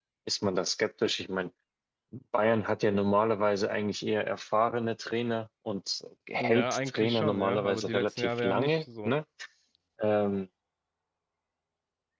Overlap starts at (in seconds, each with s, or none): 6.4 s